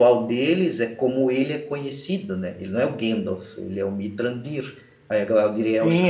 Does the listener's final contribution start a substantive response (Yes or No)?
Yes